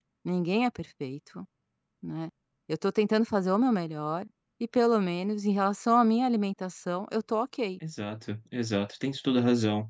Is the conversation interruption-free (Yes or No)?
Yes